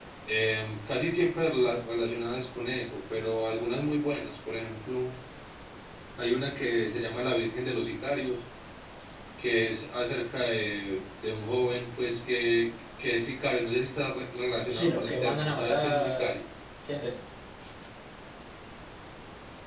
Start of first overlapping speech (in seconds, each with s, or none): 14.7 s